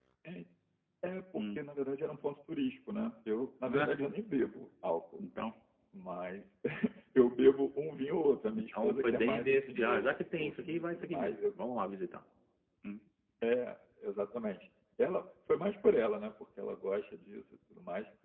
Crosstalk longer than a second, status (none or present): present